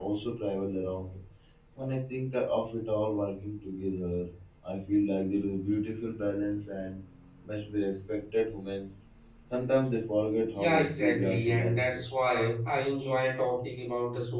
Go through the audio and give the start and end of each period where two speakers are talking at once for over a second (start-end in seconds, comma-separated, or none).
10.5-12.1